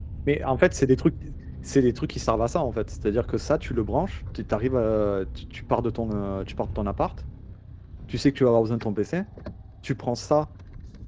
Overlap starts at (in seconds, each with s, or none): none